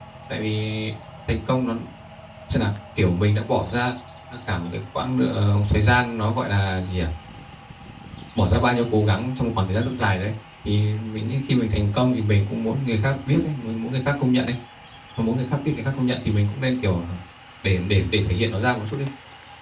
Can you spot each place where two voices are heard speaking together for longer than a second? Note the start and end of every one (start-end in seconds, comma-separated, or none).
none